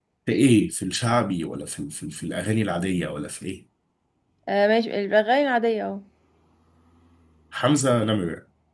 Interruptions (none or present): none